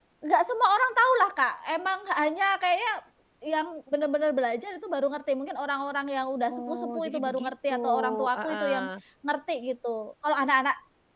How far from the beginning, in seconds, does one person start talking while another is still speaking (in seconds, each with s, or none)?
6.5 s